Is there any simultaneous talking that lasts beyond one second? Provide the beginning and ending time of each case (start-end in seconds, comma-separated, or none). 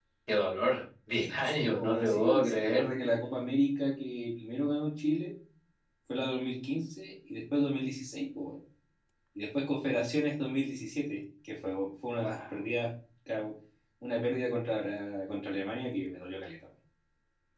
1.4-2.9